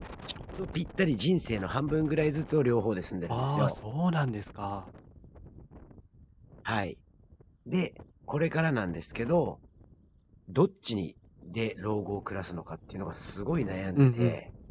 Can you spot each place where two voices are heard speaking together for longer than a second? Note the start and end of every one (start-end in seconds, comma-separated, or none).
none